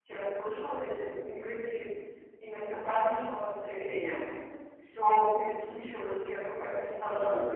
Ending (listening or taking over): listening